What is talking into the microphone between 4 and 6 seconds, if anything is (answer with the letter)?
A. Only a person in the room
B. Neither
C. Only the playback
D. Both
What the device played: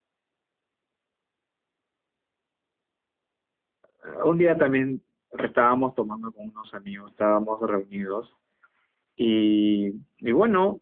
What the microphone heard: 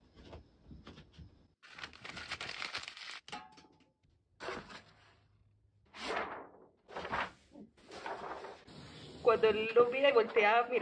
B